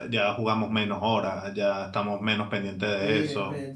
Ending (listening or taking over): taking over